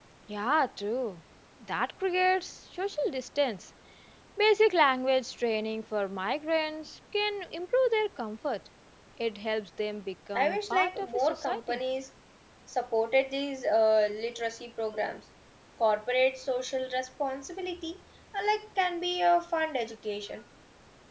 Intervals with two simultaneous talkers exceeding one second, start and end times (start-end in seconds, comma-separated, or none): 10.3-11.8